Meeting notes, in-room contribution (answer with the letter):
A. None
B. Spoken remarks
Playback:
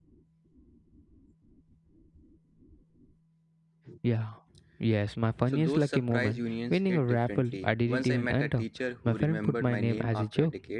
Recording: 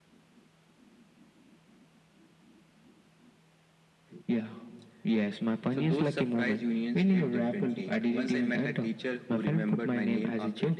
A